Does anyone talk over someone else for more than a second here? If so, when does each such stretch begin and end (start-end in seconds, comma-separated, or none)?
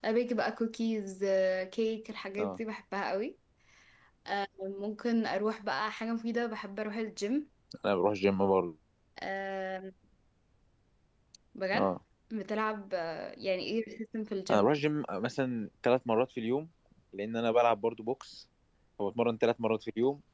none